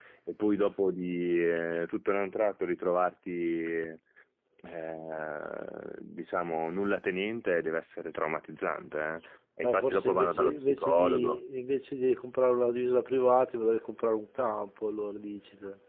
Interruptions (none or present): present